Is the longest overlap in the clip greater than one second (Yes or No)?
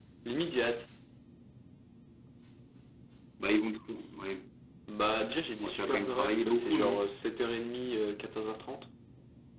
Yes